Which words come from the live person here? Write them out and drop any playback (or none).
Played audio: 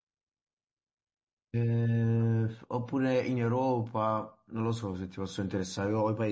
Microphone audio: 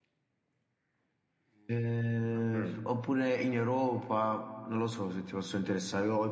Mm,